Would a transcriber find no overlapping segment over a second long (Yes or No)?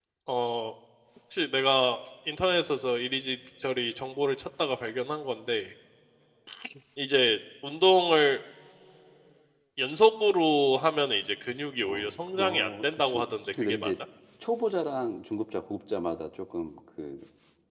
No